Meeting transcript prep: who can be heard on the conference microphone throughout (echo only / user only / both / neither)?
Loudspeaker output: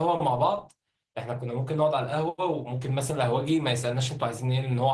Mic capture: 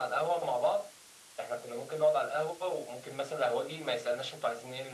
echo only